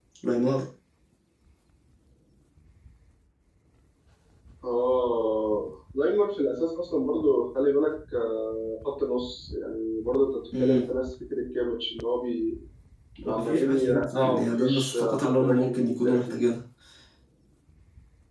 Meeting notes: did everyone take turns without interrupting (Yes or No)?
No